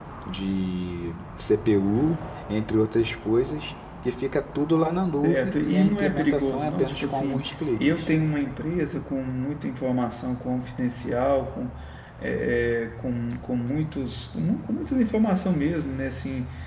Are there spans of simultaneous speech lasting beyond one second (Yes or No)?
Yes